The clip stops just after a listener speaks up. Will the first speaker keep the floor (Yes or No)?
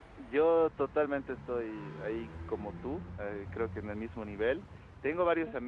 Yes